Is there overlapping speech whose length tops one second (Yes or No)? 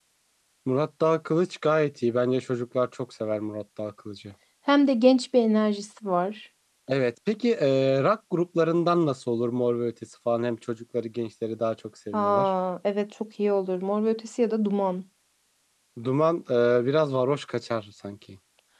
No